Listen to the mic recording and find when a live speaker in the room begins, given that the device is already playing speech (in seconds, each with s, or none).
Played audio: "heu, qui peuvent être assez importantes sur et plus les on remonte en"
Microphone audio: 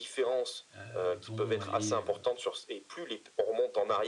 0.7 s